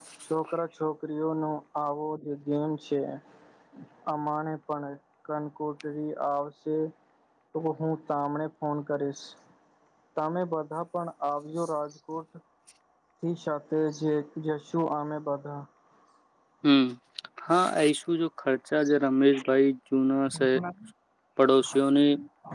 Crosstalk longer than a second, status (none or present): none